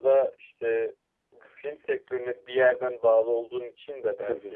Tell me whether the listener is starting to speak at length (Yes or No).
No